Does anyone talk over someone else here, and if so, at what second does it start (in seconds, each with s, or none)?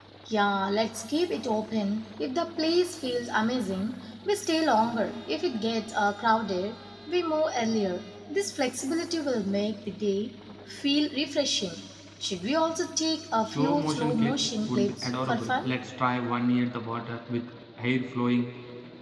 13.5 s